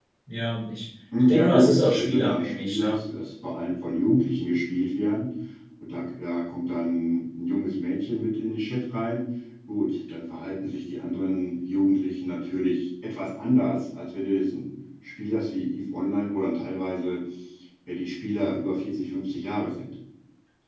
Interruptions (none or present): present